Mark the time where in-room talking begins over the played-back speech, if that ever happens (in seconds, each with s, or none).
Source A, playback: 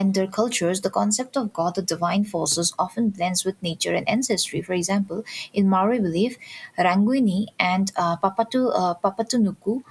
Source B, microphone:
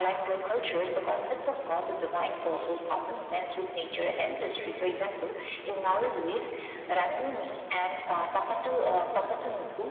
none